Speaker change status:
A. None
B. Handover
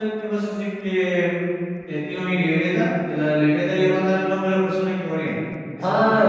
B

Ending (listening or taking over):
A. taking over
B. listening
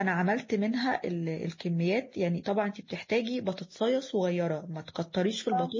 B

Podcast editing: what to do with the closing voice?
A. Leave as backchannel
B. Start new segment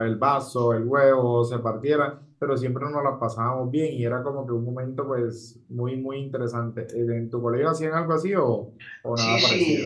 B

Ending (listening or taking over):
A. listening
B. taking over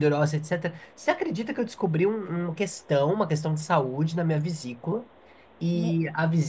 A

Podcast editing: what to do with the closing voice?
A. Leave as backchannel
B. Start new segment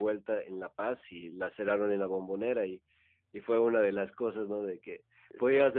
A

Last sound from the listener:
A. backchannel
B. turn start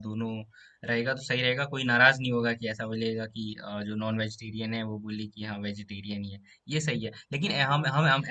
A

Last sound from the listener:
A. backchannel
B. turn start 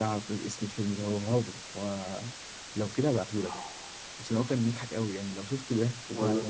B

